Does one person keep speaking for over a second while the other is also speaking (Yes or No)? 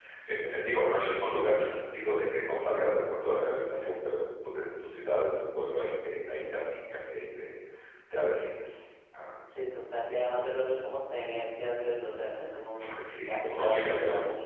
Yes